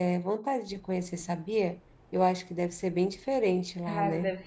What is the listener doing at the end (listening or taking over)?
taking over